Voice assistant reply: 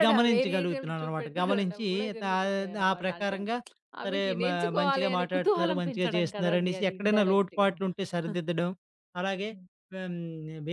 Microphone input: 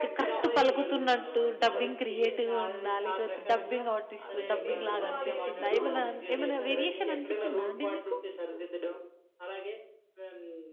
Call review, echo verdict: present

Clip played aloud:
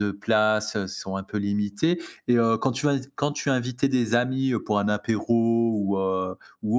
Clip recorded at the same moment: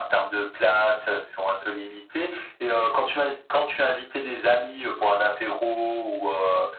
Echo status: present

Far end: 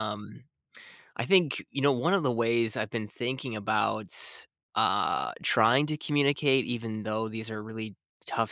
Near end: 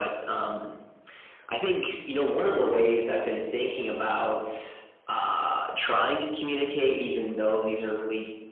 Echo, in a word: present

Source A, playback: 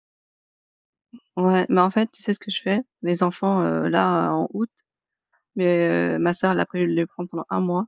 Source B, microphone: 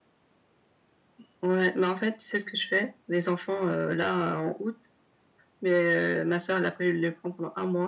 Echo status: present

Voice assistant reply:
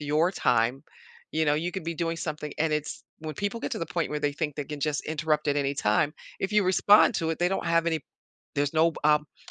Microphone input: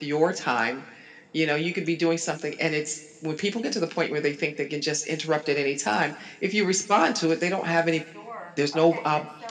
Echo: present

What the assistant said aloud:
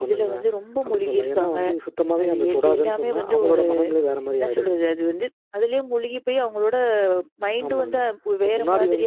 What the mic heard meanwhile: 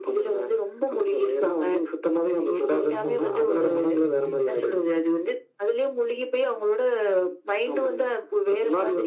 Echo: present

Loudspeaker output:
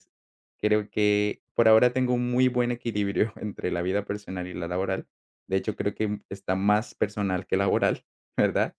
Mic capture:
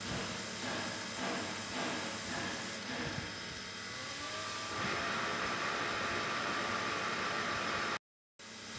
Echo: none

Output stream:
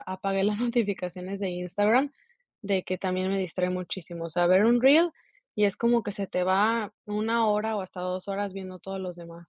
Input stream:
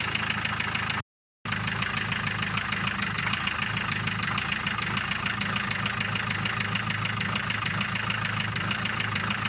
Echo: none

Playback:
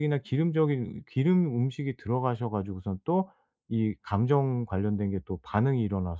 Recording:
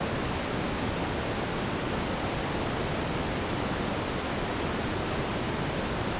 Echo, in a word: none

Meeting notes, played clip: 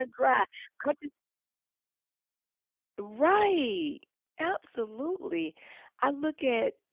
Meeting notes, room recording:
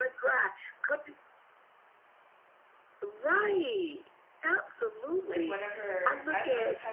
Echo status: present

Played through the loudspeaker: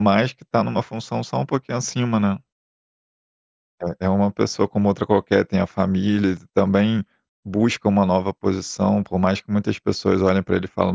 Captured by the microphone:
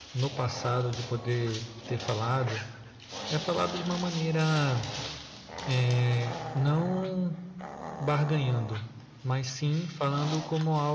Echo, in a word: none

